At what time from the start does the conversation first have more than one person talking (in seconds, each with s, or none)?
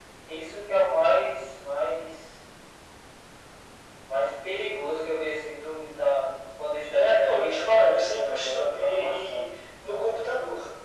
6.9 s